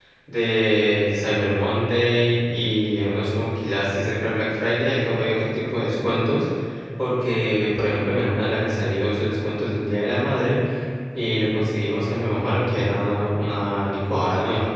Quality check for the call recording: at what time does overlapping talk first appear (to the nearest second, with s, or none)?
none